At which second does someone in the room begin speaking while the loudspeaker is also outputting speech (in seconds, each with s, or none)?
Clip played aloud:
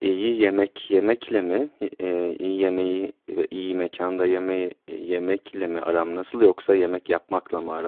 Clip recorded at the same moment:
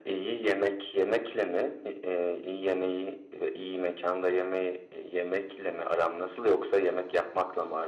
none